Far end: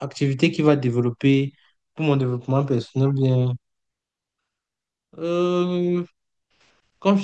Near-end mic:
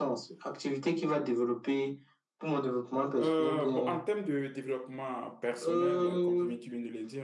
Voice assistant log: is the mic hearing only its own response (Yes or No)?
No